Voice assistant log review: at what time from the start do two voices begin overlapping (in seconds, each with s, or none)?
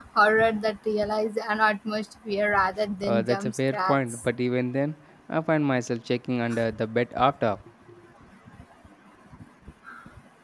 3.0 s